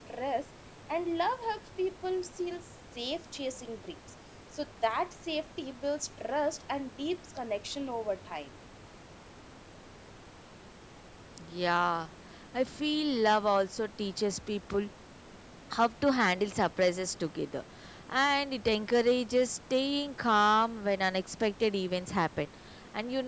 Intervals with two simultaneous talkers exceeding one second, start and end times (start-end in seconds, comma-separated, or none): none